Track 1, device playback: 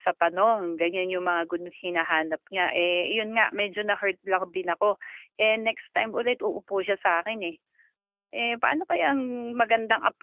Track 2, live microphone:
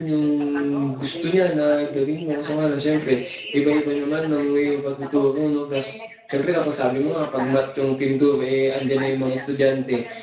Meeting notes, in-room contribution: present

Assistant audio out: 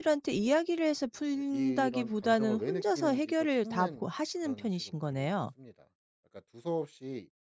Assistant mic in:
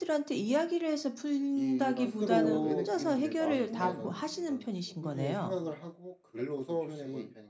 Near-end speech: present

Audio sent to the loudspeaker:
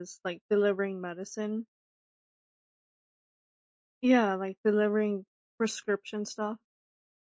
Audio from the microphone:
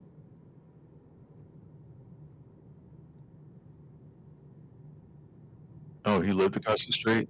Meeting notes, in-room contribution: present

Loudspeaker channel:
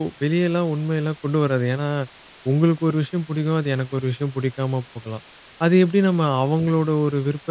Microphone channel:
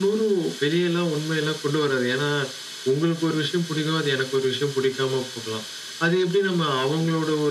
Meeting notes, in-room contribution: none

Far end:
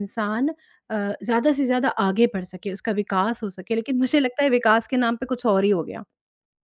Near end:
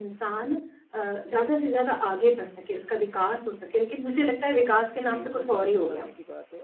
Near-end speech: present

